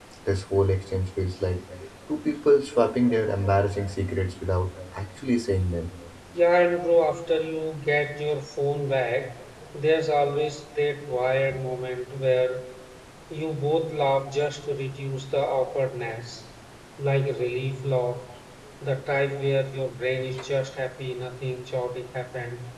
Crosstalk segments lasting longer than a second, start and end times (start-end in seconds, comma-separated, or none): none